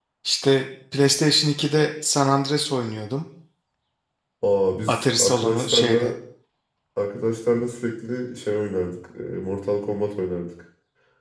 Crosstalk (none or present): present